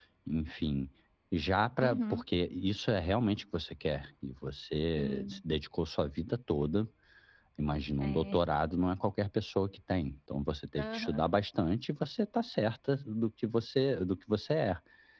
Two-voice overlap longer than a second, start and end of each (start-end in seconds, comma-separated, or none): none